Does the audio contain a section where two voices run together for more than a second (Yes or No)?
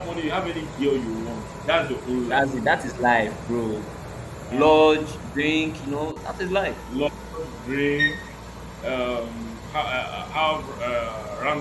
No